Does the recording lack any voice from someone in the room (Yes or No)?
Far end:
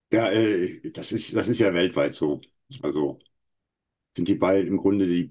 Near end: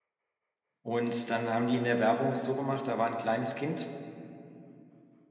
No